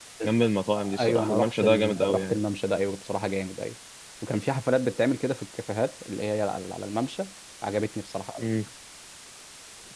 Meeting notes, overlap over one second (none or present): present